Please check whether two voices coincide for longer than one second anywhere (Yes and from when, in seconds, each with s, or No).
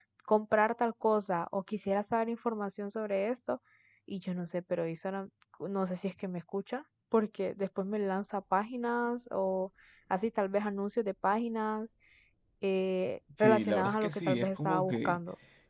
Yes, from 13.4 s